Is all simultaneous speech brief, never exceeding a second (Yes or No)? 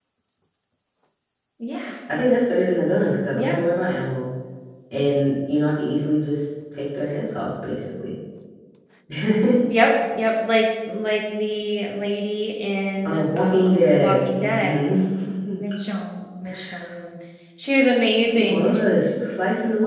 No